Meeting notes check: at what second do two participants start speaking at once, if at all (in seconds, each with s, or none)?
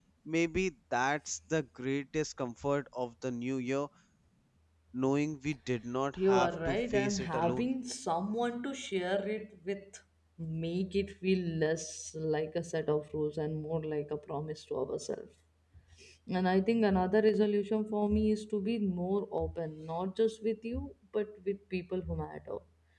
6.2 s